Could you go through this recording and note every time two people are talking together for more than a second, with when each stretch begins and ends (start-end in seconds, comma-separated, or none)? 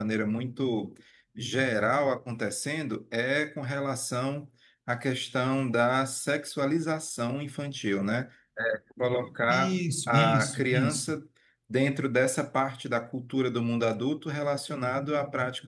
9.5-11.1